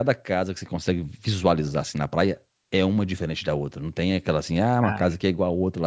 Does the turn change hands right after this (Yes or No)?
No